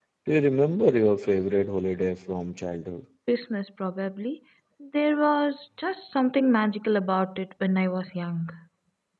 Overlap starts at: none

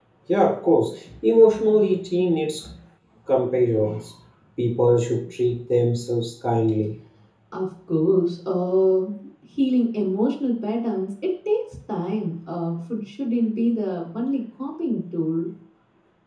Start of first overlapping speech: none

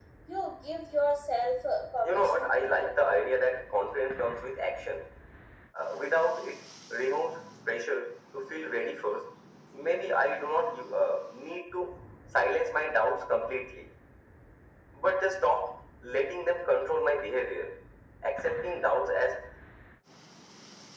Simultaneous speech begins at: 2.0 s

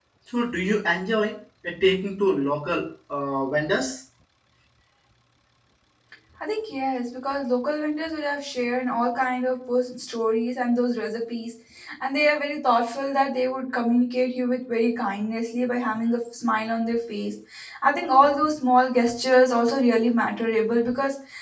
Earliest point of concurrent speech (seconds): none

